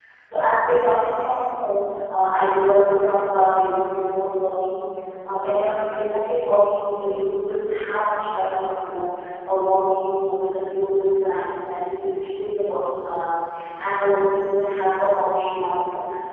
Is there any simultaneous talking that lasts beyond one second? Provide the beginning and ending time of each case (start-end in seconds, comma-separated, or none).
none